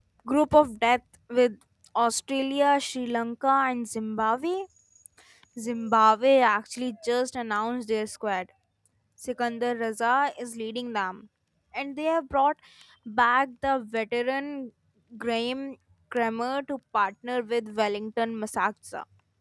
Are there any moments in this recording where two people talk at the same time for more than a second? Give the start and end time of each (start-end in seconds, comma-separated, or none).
none